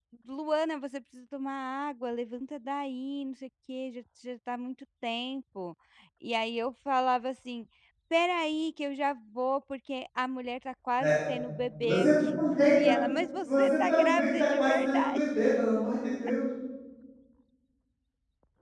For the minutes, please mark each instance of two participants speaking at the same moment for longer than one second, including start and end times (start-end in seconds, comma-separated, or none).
13.5-15.2